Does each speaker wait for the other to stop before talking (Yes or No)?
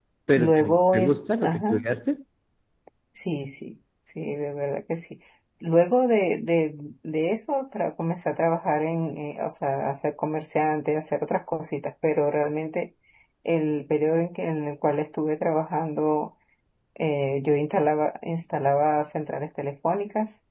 No